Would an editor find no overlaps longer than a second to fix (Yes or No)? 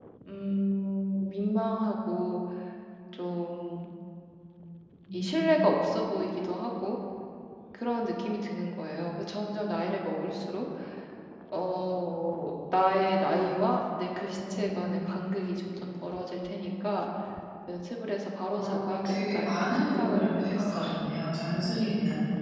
No